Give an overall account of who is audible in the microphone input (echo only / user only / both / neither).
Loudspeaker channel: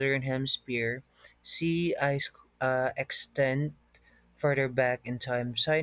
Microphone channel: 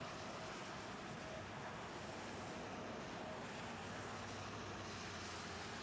neither